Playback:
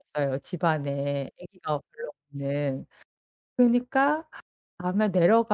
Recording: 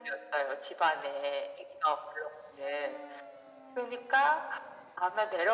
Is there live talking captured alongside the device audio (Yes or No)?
No